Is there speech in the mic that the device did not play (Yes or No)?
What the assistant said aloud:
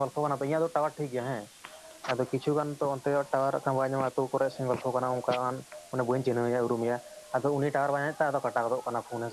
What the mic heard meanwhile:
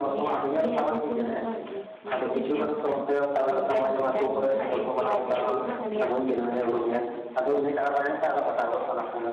Yes